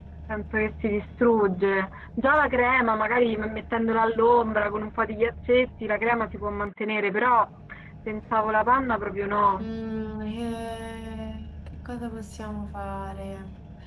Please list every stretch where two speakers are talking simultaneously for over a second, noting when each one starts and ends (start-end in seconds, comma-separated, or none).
none